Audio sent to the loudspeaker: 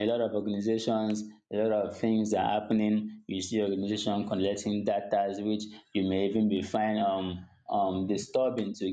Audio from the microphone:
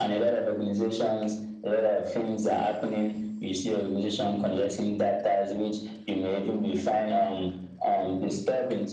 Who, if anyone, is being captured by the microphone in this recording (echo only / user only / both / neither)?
echo only